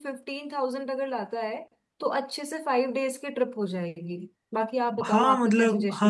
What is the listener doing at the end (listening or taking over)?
taking over